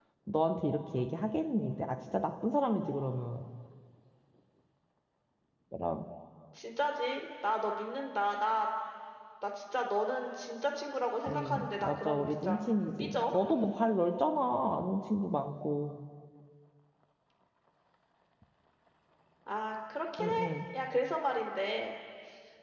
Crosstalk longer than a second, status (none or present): present